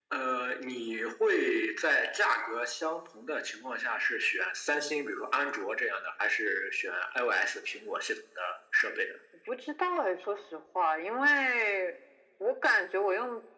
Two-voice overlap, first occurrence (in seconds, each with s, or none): none